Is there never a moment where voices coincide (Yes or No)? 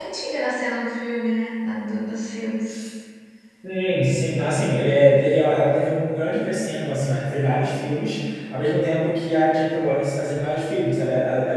Yes